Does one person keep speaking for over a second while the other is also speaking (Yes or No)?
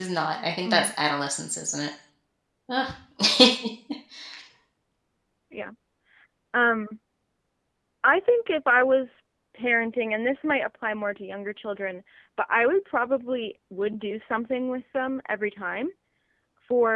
No